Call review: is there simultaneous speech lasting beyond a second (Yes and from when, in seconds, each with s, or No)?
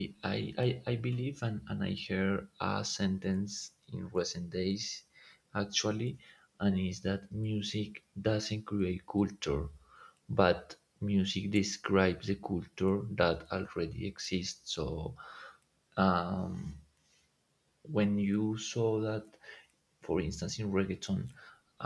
No